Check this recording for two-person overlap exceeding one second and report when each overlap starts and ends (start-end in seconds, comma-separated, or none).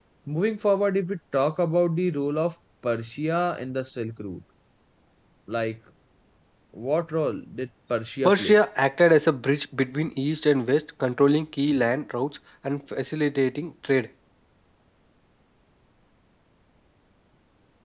none